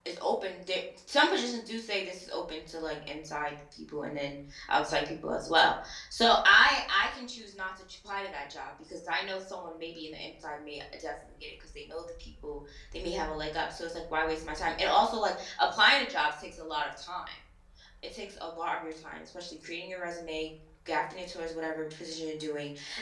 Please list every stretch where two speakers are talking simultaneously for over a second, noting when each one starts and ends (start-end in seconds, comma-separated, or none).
none